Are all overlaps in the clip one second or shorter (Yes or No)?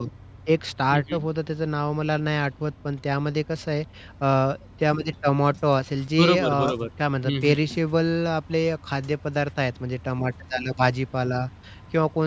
Yes